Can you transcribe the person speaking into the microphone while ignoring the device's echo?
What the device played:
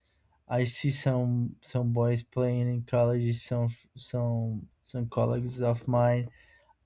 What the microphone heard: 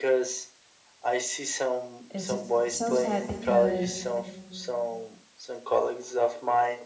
is so sad because

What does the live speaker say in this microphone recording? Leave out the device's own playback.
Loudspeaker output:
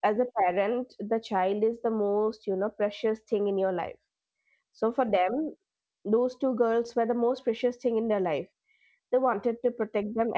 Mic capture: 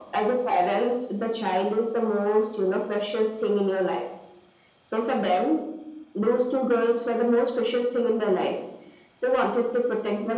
none

